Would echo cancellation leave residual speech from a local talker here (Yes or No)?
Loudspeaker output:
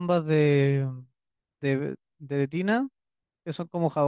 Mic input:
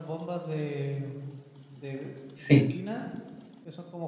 Yes